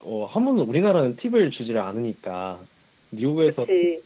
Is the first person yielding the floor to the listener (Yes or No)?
No